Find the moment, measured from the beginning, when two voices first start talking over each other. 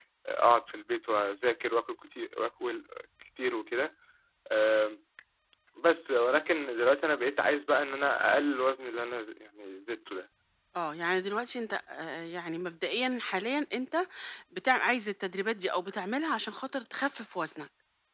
none

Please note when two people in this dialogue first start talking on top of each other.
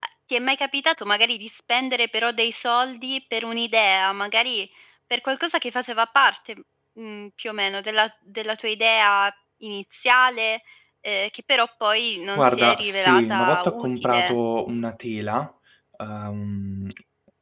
12.3 s

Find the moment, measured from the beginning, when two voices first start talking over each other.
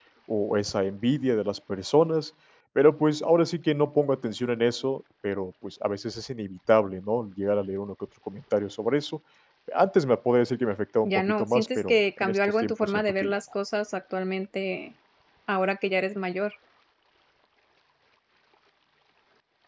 11.0 s

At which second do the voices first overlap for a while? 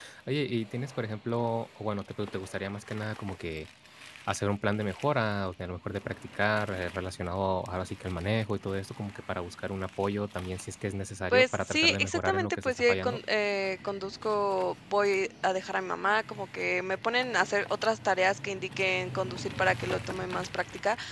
11.3 s

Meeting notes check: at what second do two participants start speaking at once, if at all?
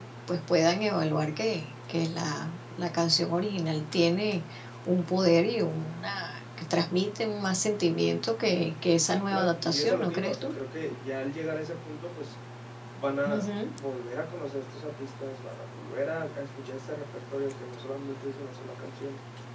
9.0 s

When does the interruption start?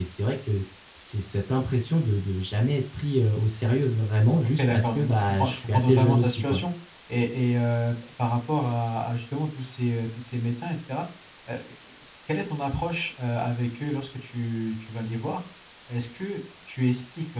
4.6 s

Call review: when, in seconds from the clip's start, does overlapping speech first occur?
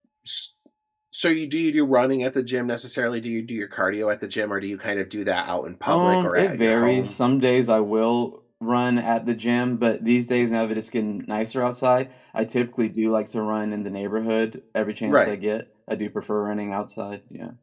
5.9 s

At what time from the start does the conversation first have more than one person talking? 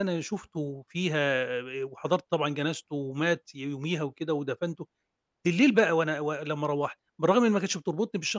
none

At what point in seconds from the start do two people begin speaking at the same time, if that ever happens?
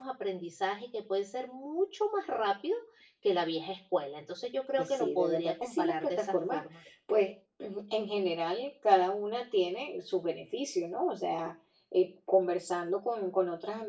4.8 s

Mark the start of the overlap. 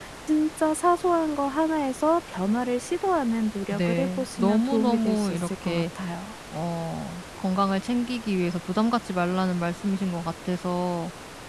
3.7 s

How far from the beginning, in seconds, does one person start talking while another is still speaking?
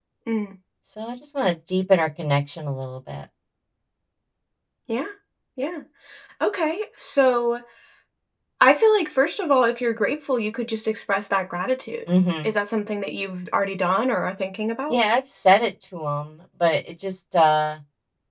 none

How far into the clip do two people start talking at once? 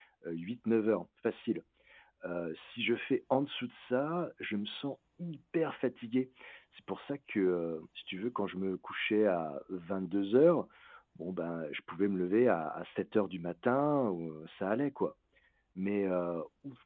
none

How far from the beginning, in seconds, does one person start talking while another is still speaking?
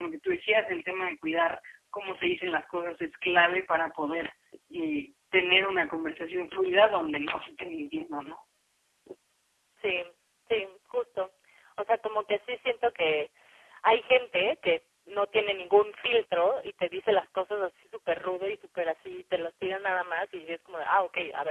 none

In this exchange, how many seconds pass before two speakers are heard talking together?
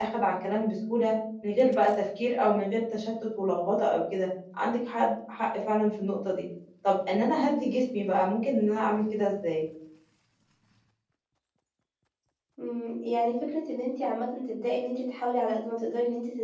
none

